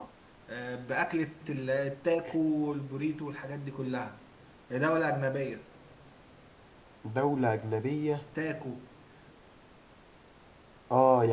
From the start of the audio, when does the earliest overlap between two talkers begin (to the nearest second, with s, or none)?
none